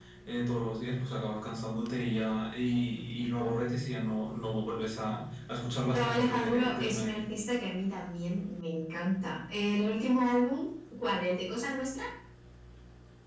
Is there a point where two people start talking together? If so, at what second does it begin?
5.9 s

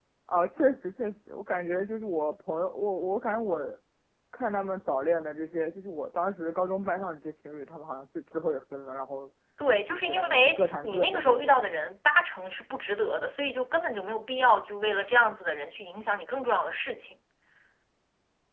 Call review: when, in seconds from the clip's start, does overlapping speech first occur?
9.9 s

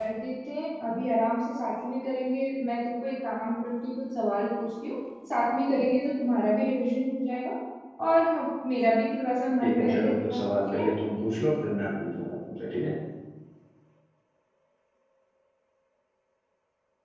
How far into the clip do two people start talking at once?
9.6 s

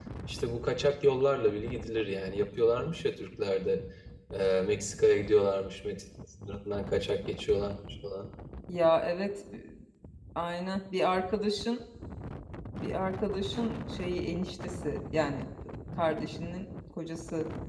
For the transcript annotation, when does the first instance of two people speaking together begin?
none

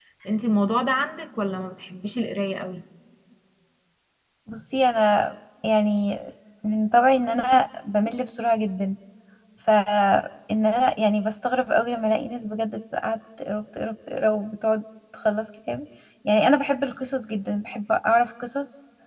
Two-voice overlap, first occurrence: none

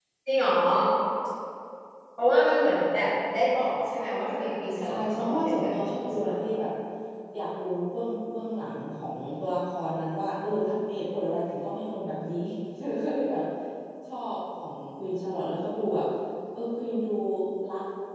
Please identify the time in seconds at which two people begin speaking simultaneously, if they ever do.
4.8 s

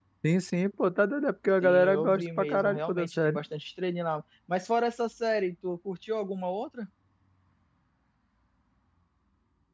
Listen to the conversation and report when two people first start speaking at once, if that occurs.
1.6 s

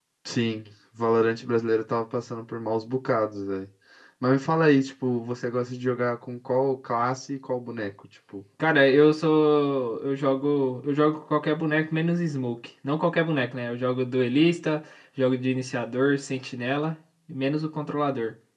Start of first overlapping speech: none

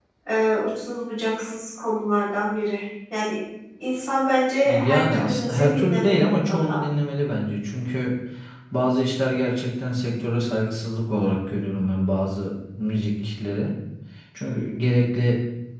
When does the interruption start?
4.7 s

